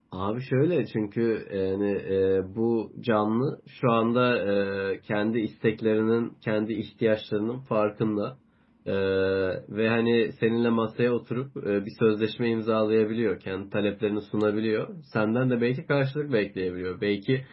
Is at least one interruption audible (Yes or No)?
No